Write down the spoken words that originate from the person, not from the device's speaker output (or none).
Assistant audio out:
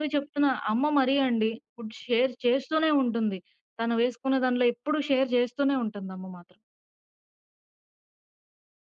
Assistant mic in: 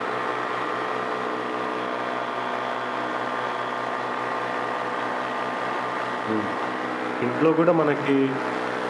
హ్మ్. ఇంట్లో గూడా మనకి